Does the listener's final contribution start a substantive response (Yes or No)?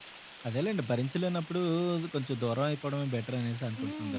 Yes